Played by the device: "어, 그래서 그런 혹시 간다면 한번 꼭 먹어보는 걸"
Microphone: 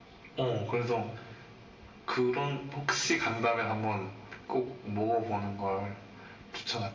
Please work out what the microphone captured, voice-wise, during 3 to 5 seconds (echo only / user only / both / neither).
echo only